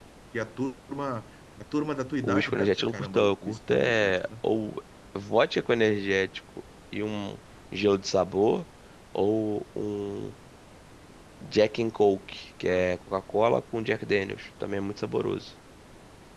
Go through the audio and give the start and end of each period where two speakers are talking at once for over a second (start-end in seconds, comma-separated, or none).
2.2-4.2